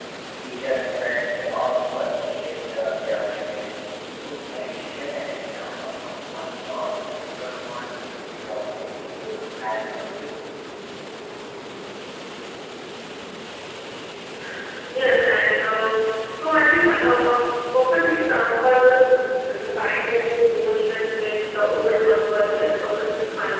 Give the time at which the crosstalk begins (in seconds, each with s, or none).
none